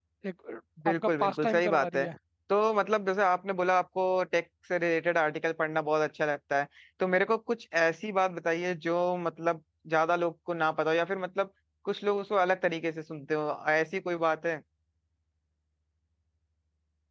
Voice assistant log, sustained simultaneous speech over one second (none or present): present